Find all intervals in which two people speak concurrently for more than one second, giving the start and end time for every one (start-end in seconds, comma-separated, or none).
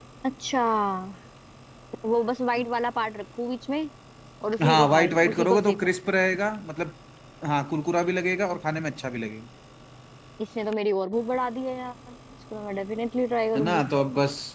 4.6-5.9